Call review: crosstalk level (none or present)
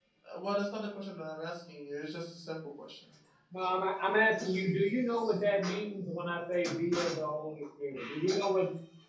none